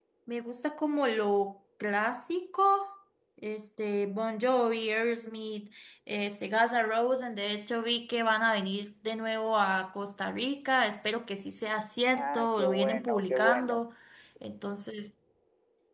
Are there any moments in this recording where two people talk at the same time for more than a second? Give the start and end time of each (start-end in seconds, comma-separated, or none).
12.2-13.8